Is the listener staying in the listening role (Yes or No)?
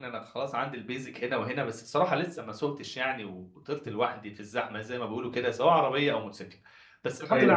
Yes